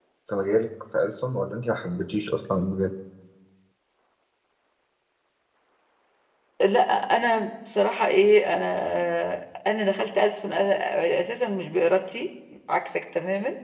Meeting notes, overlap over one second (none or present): none